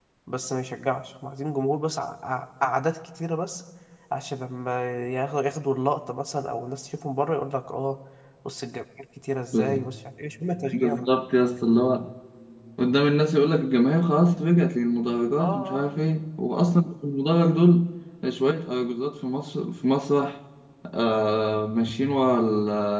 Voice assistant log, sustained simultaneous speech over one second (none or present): none